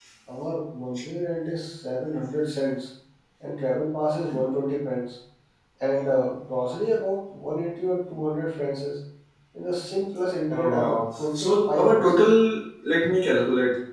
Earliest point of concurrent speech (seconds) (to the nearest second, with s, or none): 11 s